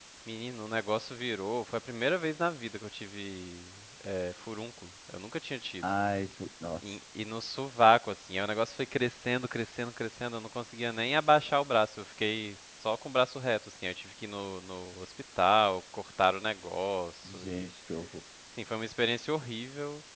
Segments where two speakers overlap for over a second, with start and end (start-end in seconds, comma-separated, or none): none